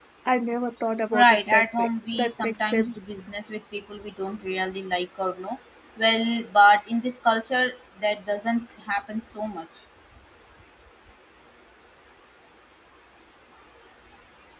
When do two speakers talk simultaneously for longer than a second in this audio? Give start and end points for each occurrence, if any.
1.1-3.1

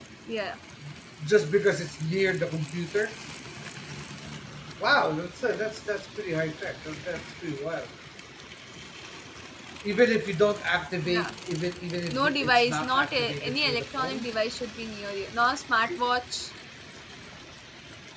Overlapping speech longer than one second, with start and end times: 12.1-14.2

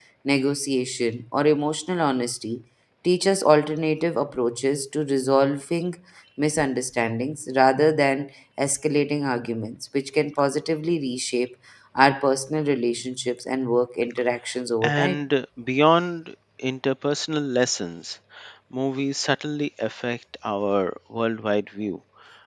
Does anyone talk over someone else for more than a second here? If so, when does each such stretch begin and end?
none

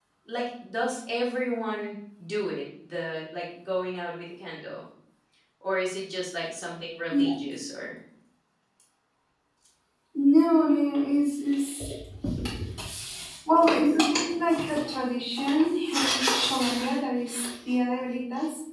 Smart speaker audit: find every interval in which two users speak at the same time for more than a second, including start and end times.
none

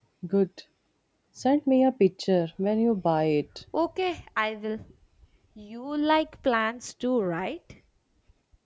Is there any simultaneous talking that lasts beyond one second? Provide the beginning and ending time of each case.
none

